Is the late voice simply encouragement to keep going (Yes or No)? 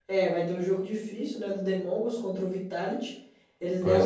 Yes